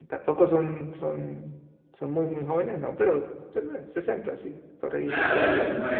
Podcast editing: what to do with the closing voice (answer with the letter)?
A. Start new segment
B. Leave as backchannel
A